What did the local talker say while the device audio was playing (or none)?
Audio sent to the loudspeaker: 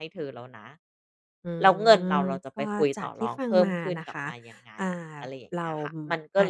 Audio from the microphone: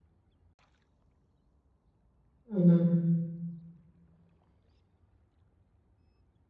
อืม